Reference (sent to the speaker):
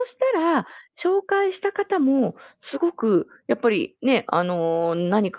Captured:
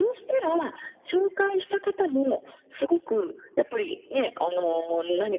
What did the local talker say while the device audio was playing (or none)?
none